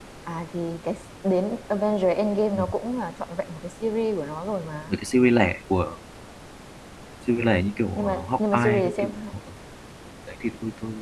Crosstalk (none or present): present